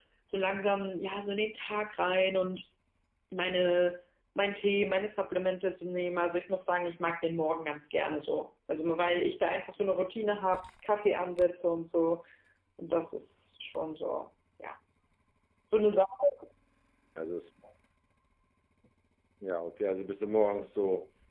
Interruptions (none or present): none